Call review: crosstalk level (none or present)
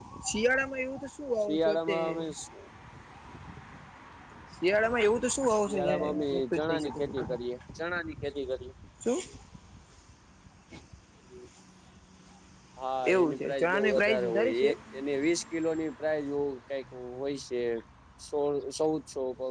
present